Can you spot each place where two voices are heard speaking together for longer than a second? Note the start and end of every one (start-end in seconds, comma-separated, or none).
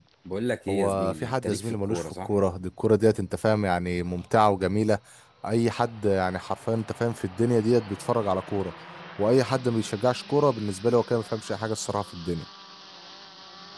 0.7-2.3